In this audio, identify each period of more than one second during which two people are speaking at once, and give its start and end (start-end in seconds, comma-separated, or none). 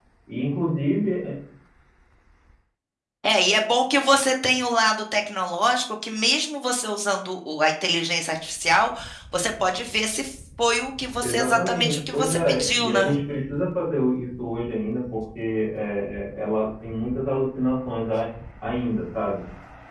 11.2-13.2